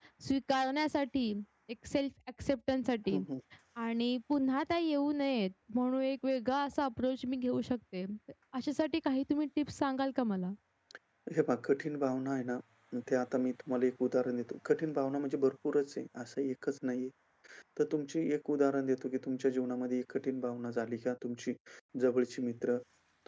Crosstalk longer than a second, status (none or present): none